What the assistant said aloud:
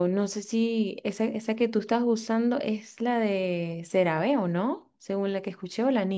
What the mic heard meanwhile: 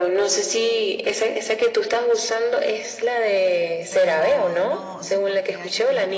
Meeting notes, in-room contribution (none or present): present